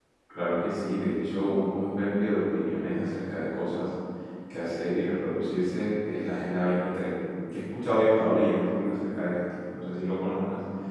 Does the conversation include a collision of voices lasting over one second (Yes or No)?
No